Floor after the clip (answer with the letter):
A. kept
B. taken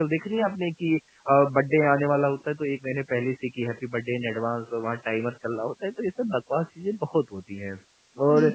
A